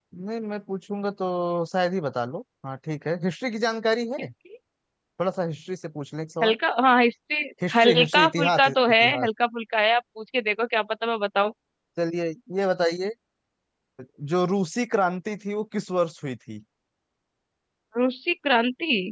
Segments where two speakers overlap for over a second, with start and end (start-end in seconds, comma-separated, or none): 7.7-9.3